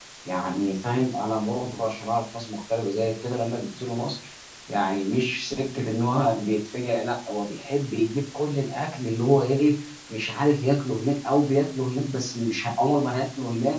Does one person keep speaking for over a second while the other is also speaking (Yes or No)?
No